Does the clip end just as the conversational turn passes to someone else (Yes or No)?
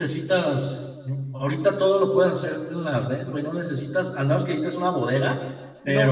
Yes